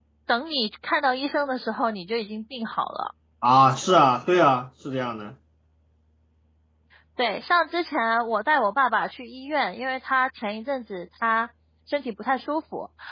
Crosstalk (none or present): none